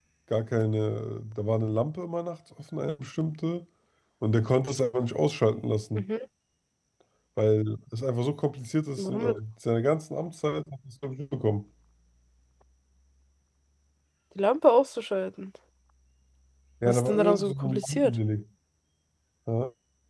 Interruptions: present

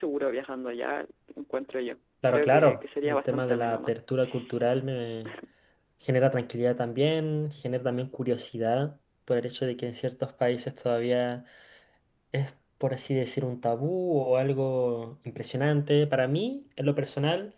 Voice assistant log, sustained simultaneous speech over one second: present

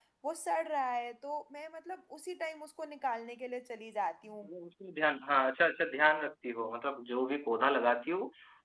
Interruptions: none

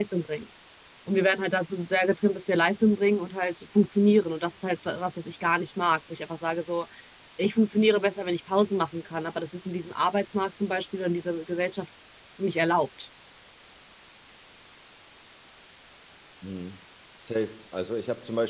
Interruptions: none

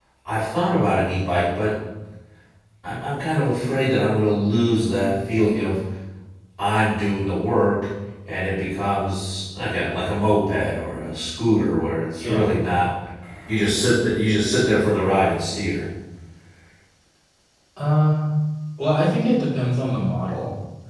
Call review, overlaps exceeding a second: none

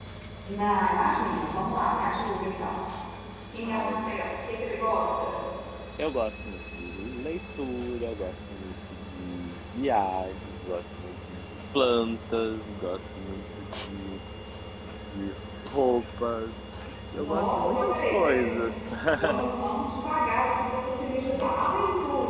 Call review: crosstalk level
present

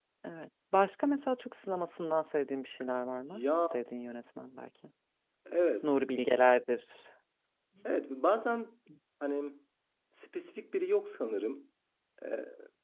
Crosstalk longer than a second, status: none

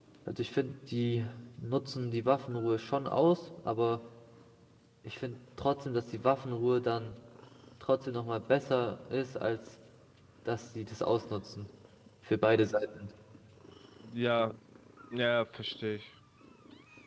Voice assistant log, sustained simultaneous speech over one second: none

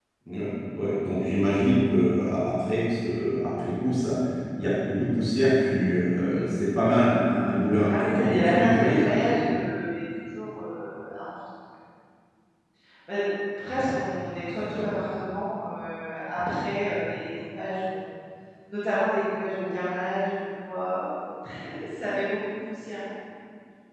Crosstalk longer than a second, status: present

